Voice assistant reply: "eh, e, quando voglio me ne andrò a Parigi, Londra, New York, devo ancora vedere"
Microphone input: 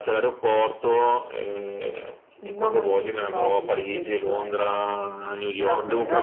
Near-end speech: present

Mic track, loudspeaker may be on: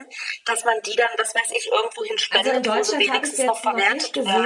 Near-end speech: present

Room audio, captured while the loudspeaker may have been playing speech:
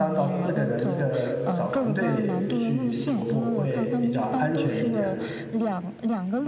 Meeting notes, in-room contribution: present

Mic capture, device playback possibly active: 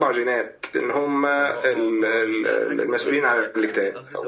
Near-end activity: present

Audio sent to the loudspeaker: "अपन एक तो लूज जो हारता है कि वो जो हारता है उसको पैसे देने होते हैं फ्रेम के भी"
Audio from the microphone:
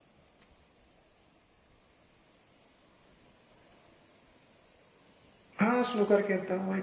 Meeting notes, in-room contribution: present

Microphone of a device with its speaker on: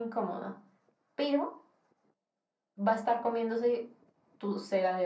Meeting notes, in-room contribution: none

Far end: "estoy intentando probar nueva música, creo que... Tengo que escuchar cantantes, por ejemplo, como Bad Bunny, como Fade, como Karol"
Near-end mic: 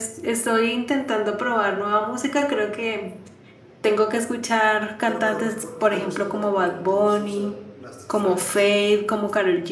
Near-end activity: present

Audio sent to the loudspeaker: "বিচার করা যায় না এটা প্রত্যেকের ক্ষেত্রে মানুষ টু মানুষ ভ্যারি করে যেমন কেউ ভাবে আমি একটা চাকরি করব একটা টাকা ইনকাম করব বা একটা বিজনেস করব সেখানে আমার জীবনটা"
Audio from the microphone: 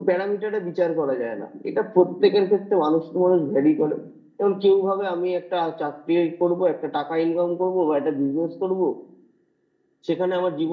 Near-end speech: none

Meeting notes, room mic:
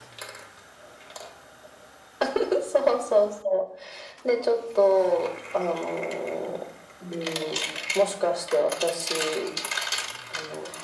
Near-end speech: none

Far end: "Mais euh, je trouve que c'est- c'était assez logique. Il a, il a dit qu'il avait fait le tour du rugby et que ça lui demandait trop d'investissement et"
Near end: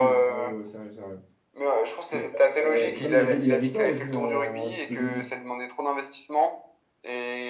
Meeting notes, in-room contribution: present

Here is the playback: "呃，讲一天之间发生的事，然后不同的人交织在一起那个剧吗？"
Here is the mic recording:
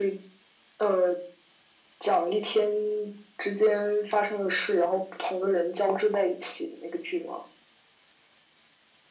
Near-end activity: none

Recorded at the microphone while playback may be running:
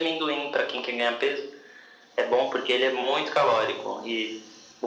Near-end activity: none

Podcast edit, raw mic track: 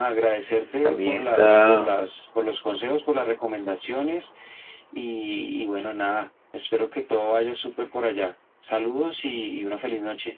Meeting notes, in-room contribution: present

